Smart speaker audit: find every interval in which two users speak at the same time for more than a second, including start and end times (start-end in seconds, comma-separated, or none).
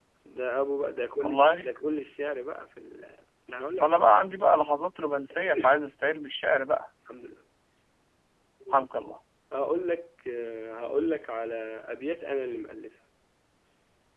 none